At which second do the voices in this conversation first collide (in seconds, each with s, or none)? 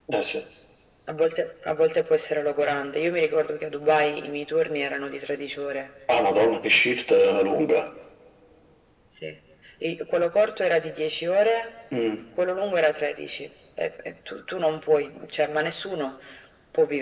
none